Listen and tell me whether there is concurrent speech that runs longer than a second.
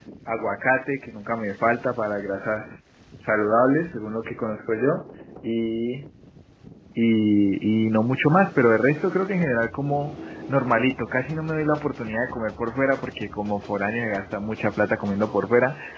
No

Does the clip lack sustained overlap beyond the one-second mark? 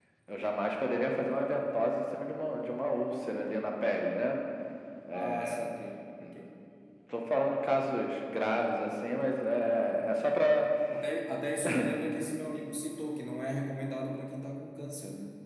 Yes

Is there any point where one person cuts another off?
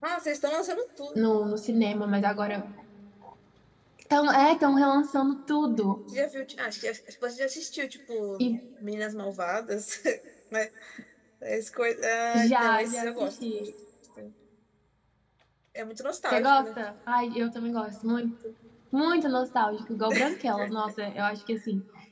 Yes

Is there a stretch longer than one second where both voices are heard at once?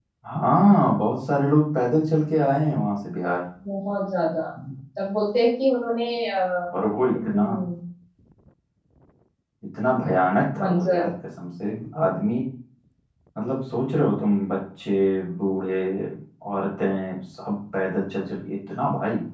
No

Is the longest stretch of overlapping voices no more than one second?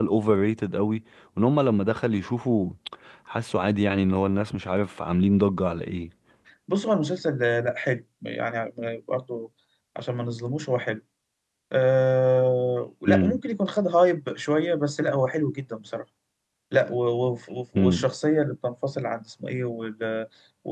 Yes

